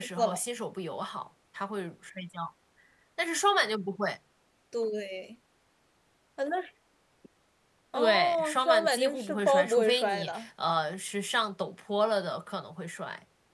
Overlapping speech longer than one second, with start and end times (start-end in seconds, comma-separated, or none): 7.9-10.5